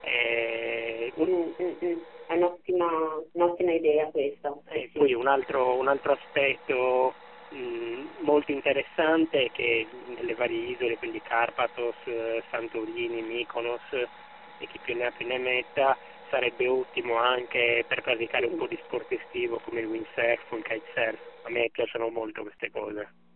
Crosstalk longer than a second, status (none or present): none